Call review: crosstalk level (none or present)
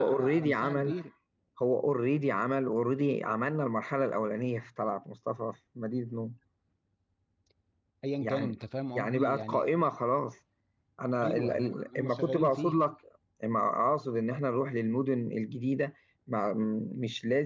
present